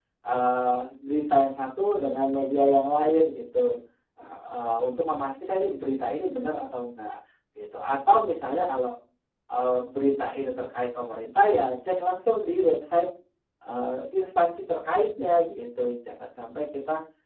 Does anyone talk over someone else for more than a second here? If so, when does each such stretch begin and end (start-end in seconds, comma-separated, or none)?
none